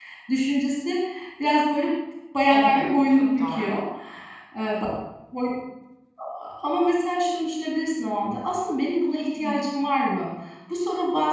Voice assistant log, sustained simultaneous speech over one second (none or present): present